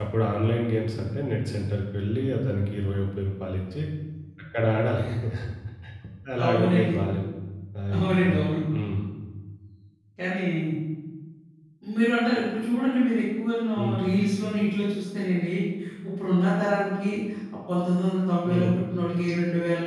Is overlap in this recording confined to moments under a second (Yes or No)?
Yes